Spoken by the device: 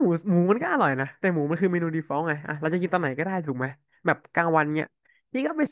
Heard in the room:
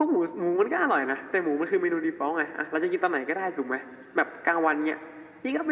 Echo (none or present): present